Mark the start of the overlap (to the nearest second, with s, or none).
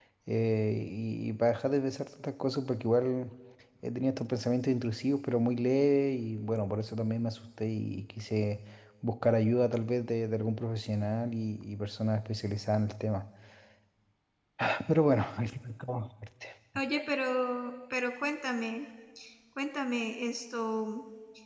none